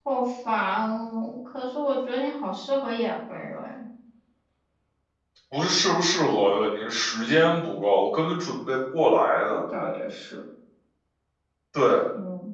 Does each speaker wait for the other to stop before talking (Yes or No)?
Yes